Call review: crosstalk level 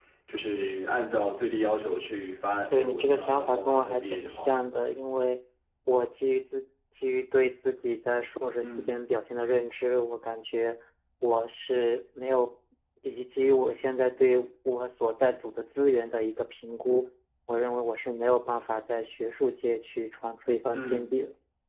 present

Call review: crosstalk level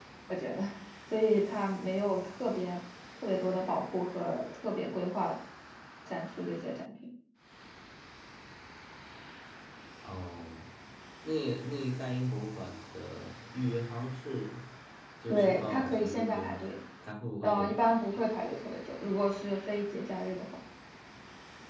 present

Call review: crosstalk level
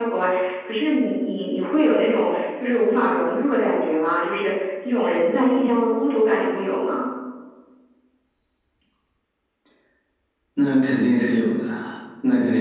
none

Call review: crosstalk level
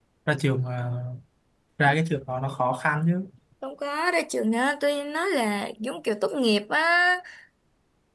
none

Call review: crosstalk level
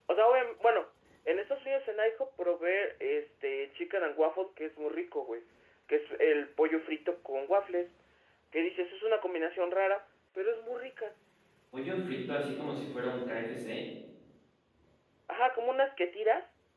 none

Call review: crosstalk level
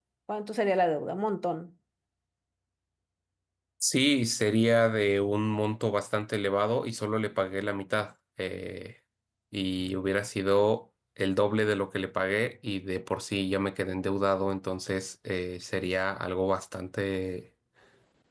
none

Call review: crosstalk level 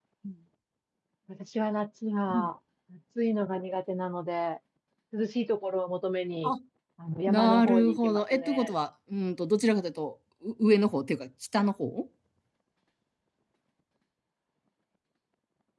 present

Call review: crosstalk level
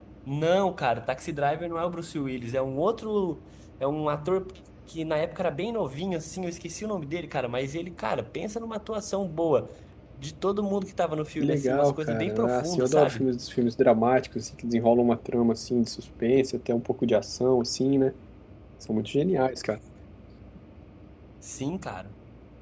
present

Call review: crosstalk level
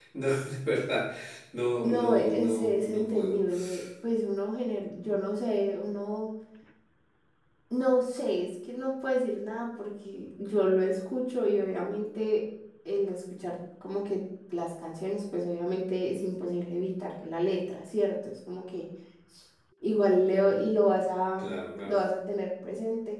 present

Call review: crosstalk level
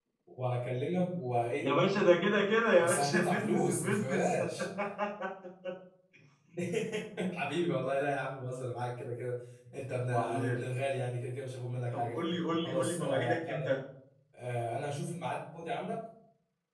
present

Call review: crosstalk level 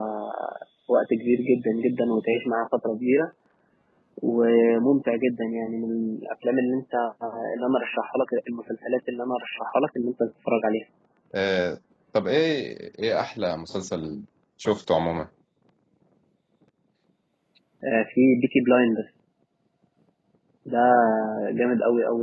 none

